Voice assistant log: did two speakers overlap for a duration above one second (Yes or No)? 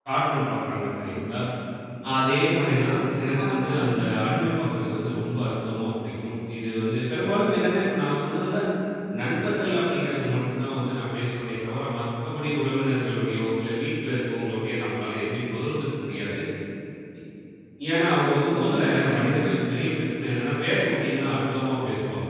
Yes